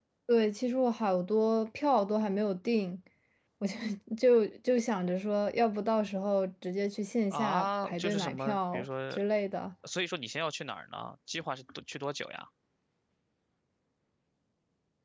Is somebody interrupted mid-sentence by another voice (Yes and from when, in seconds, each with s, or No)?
Yes, from 7.3 s